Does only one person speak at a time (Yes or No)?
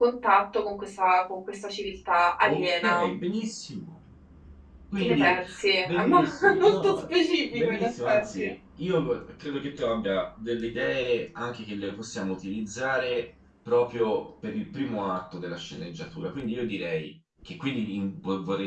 No